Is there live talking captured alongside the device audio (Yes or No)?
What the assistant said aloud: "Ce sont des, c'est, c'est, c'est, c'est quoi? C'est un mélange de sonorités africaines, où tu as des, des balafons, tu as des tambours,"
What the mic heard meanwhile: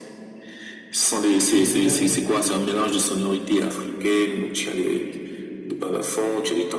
Yes